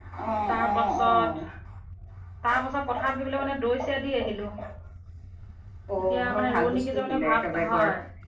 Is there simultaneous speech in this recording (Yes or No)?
Yes